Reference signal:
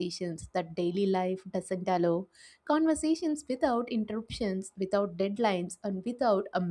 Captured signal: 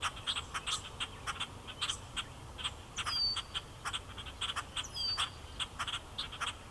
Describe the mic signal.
neither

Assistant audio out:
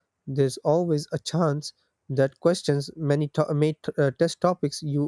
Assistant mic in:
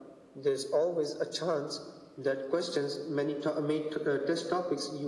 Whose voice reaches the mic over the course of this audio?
echo only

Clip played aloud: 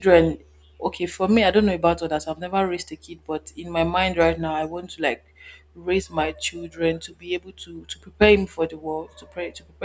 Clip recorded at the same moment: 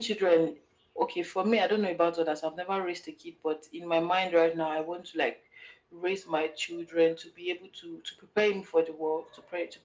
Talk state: echo only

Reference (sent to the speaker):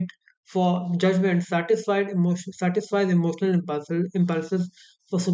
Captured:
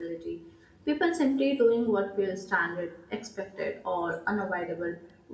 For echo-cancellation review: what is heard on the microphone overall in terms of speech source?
user only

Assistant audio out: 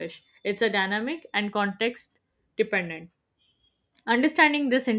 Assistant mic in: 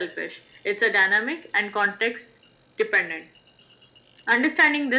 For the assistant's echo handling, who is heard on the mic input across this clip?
echo only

